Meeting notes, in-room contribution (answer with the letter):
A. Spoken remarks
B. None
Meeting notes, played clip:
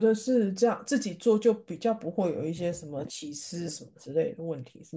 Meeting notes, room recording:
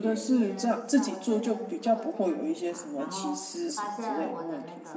A